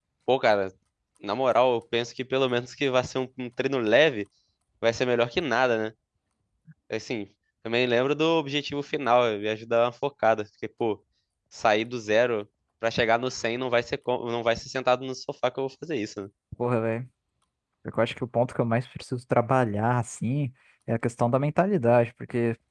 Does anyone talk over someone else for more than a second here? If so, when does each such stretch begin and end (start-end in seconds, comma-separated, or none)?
none